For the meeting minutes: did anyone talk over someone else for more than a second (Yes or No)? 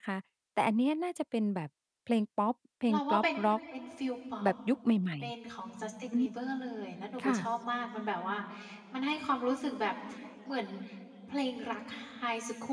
No